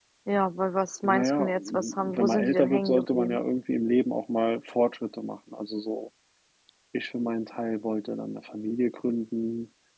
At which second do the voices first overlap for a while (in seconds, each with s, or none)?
1.0 s